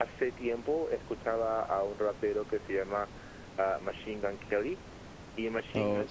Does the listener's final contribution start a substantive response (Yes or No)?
No